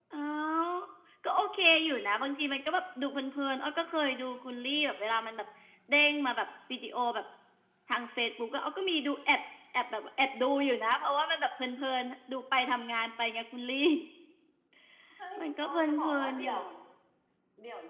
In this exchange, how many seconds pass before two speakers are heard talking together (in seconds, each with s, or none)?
15.4 s